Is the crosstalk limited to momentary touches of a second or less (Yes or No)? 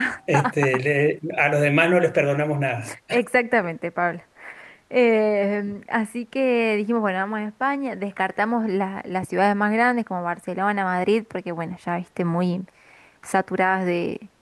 Yes